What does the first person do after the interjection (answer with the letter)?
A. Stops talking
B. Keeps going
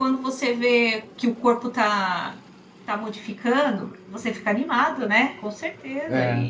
A